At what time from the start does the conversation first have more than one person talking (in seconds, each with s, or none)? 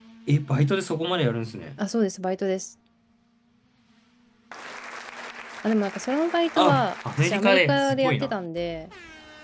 6.6 s